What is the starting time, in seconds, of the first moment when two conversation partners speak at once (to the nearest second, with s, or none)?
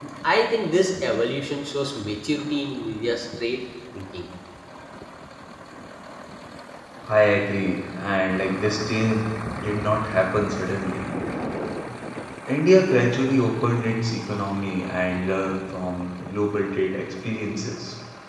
none